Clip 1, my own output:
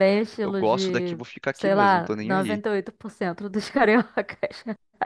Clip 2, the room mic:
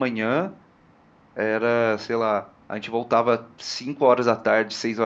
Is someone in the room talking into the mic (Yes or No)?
Yes